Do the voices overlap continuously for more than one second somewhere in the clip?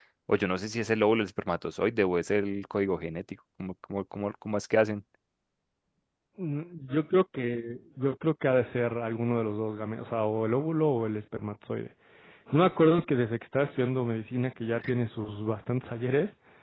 No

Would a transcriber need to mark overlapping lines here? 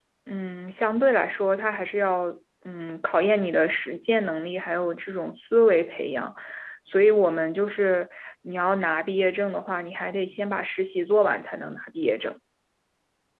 No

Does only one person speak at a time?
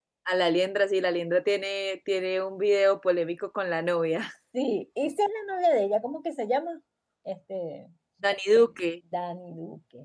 Yes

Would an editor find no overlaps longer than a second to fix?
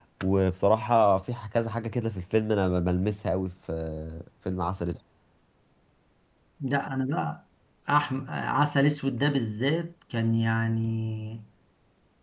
Yes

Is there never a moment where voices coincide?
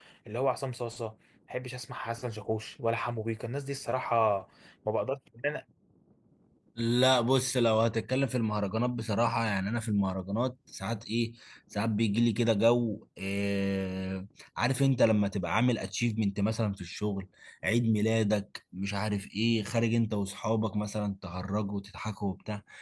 Yes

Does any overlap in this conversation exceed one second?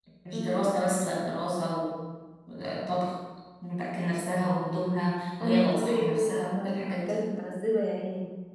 Yes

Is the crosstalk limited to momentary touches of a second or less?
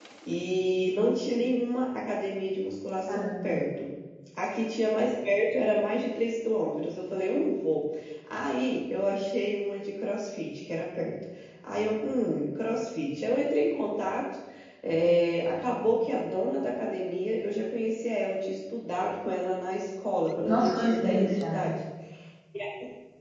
No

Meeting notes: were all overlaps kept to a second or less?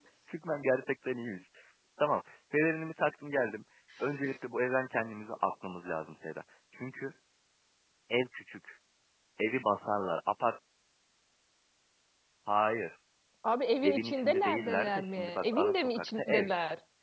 No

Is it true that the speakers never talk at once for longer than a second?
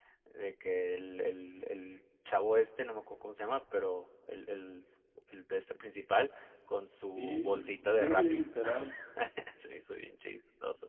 No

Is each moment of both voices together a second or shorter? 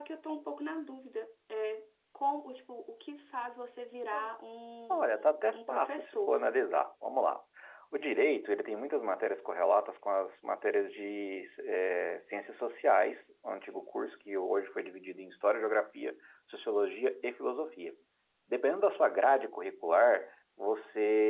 No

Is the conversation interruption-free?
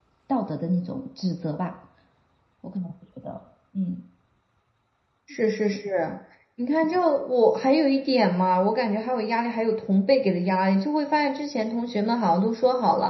Yes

